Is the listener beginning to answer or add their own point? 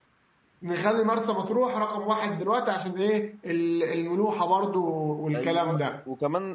Yes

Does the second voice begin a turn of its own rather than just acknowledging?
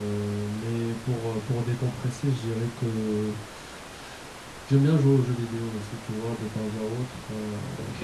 Yes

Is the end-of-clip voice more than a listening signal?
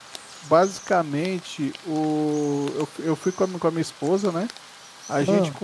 No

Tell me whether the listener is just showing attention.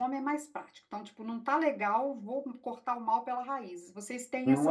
No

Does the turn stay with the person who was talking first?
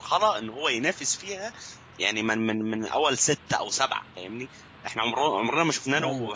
Yes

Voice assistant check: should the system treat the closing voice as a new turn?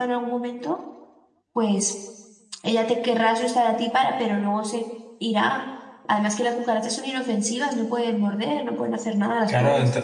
Yes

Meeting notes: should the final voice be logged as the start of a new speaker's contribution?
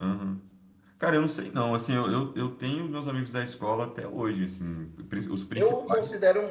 Yes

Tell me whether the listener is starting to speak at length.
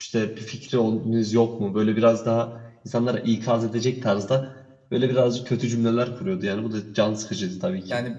Yes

